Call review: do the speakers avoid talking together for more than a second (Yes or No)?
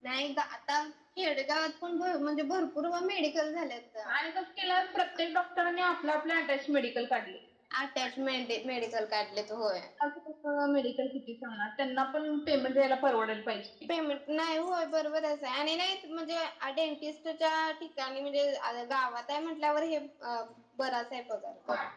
Yes